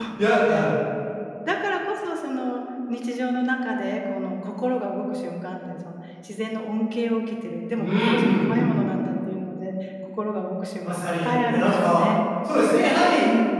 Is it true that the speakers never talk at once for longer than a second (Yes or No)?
No